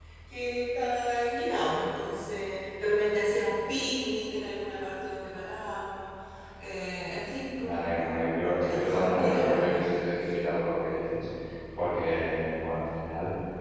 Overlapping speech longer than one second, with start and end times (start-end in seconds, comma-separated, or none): 7.6-10.0